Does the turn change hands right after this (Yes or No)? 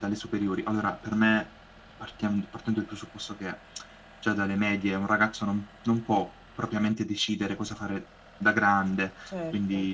No